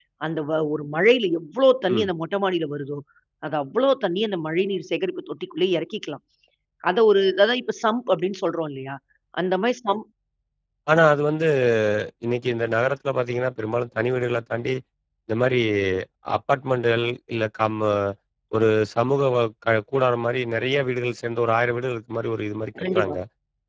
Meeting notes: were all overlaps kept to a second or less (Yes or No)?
Yes